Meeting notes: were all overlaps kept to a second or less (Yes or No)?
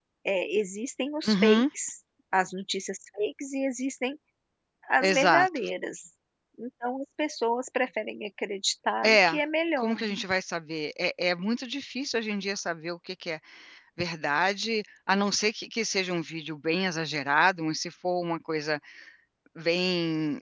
Yes